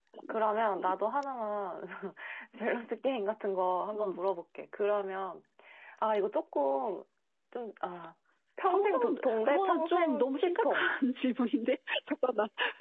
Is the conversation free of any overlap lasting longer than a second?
No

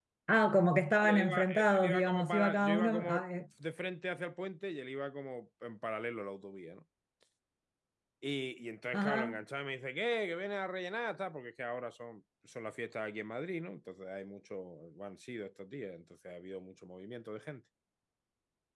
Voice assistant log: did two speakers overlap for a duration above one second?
Yes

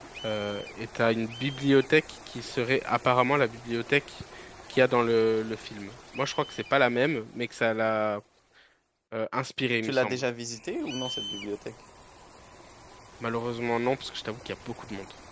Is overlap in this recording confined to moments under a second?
Yes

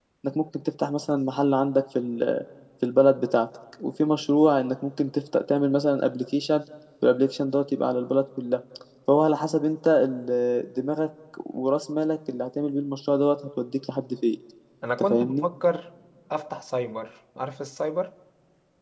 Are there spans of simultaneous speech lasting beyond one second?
No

